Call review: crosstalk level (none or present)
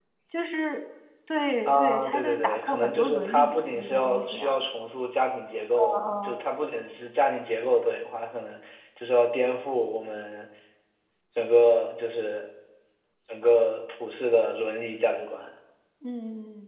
present